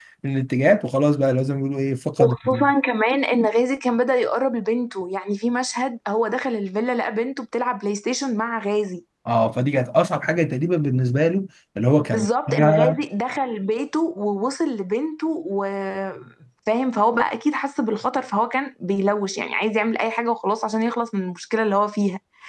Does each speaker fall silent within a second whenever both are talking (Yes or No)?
Yes